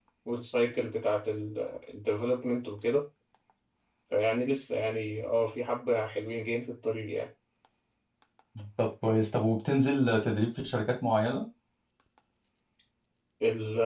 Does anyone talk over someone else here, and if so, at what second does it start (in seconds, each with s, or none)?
none